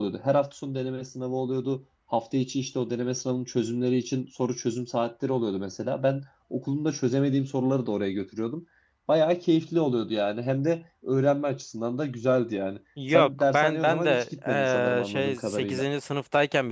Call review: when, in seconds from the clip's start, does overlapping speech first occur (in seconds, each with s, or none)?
13.0 s